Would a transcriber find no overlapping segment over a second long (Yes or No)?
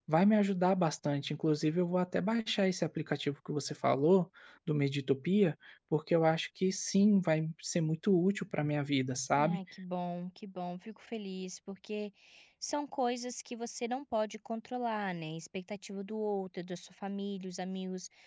Yes